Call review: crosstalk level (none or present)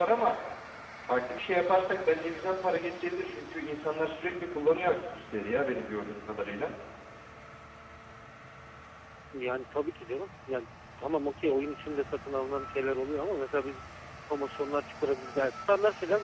none